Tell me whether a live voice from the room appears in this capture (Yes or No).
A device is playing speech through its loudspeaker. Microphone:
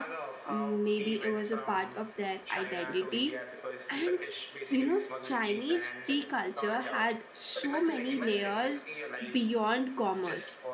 Yes